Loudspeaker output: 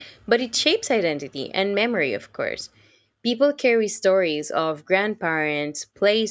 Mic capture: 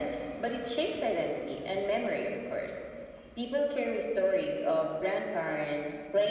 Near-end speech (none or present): none